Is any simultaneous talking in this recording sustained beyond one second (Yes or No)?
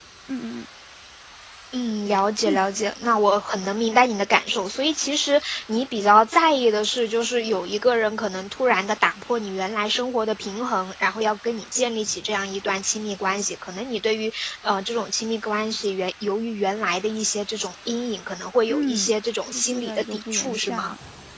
Yes